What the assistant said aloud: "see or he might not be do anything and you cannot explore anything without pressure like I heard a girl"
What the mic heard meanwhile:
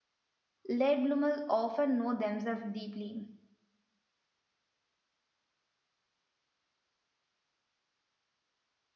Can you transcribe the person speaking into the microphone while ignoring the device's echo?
Late bloomers often know themselves deeply.

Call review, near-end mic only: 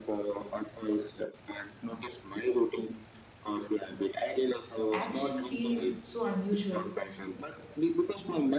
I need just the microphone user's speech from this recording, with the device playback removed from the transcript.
action feel so unusual

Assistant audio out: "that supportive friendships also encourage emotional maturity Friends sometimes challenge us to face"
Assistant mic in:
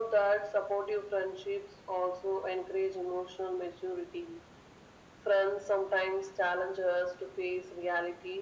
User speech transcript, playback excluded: none

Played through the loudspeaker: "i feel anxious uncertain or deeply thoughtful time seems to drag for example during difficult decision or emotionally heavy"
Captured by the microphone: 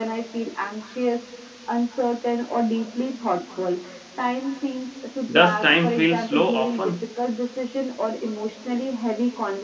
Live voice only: does time feel slow often

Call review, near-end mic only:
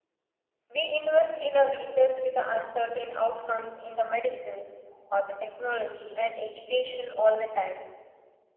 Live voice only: We invest in a research with the uncertain outcomes in the medicines or the technology and education all the time.

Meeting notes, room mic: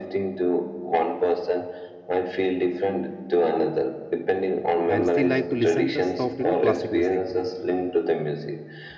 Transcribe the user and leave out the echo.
and she liked to listen the soft you know classic music

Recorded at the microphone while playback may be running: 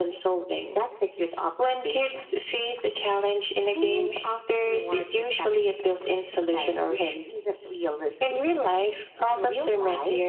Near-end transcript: none

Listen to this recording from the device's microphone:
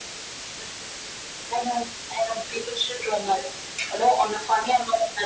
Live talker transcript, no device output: none

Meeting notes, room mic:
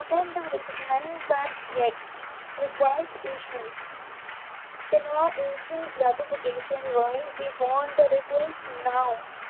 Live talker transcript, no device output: none

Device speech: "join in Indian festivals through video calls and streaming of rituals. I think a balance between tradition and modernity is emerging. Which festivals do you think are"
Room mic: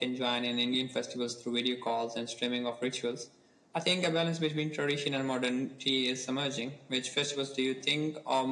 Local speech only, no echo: none

